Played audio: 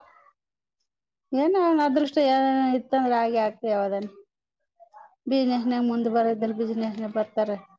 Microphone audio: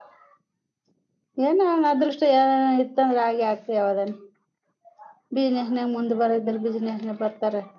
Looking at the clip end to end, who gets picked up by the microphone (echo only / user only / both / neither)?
echo only